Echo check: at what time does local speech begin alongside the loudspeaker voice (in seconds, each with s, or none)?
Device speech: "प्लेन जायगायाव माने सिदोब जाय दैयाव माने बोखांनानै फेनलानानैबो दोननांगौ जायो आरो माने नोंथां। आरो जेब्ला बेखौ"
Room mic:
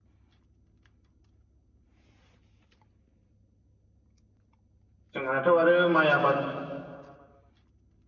5.1 s